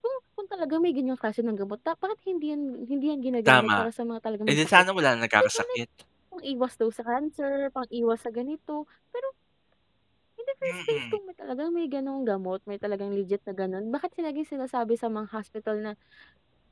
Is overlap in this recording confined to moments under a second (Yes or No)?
Yes